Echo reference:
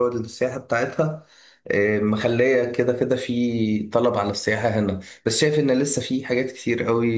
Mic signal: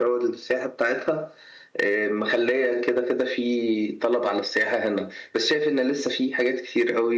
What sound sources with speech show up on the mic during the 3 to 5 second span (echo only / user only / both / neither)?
echo only